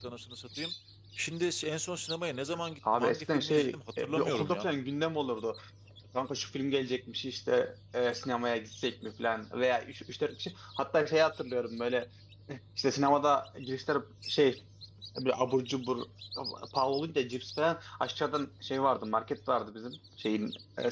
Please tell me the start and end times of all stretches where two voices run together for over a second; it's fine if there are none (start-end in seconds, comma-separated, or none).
2.9-4.7